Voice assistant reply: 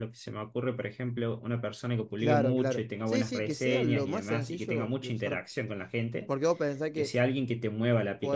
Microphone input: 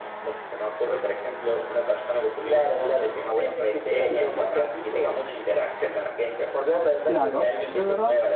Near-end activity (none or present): present